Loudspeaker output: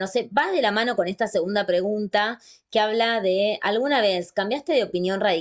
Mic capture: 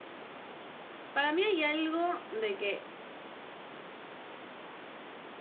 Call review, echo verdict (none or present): none